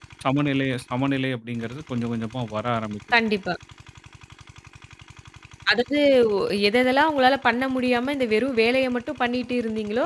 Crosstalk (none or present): none